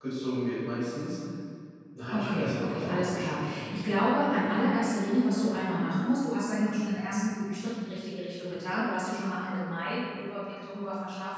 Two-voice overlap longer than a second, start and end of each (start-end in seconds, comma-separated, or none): 2.1-3.5